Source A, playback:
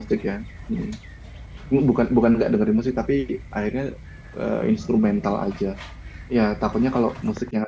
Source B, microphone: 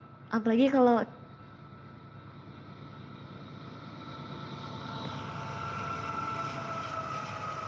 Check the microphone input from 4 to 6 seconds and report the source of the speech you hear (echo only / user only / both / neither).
neither